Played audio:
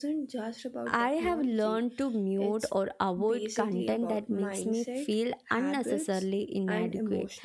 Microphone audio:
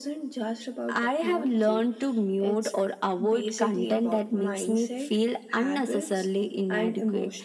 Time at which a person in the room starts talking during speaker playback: none

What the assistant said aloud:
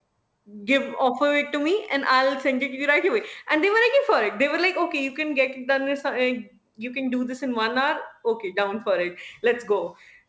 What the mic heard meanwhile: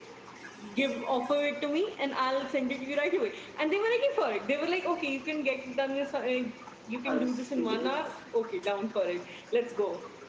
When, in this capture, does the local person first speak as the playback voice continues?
7 s

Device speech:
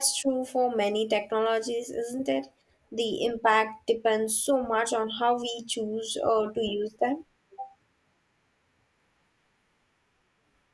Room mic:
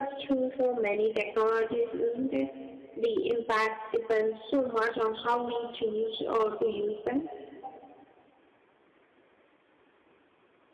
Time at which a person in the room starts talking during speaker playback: none

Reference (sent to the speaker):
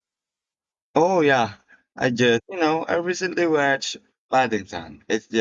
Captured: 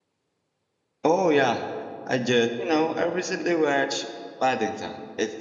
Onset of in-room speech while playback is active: none

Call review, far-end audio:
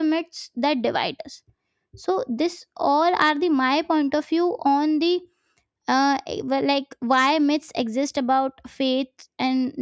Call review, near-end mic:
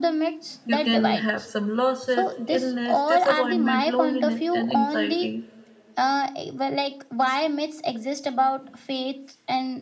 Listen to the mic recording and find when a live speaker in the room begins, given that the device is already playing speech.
1 s

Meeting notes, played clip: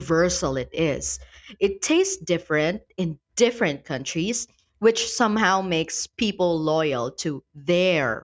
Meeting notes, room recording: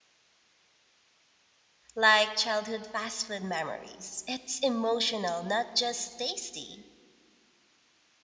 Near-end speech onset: 2 s

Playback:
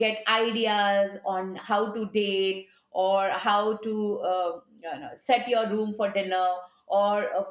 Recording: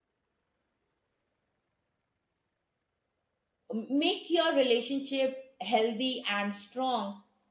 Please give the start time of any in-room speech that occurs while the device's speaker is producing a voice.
4 s

